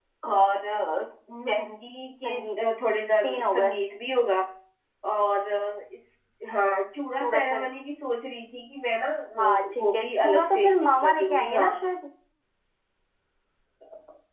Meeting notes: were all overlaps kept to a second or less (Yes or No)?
No